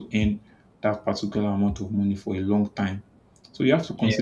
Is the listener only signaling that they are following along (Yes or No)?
Yes